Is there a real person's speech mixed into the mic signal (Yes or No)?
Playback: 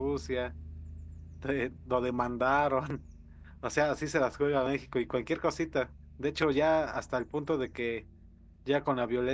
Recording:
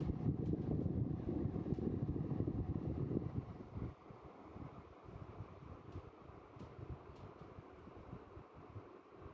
No